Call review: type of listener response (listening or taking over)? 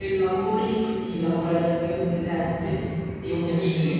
listening